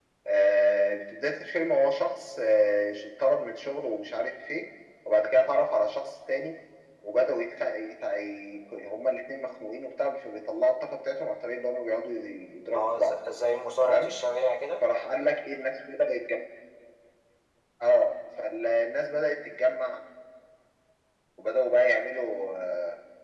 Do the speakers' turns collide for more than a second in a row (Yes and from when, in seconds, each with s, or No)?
No